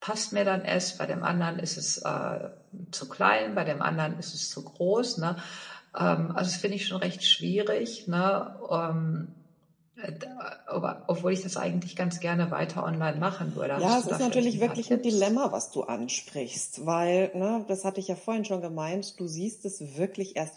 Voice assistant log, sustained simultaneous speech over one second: present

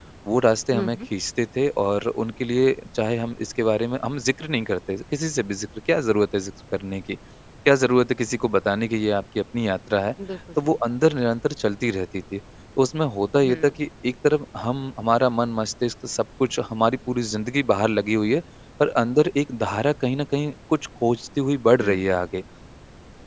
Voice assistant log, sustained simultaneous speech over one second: none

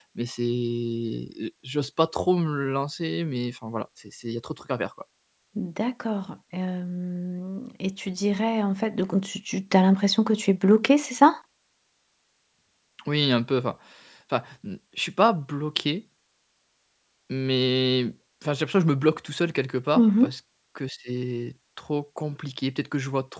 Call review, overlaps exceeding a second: none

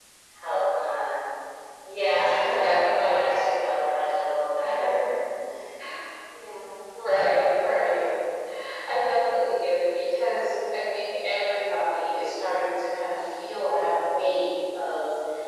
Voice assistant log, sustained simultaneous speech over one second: present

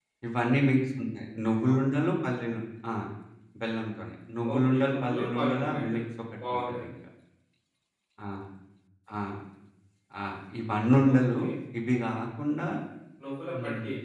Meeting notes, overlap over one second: present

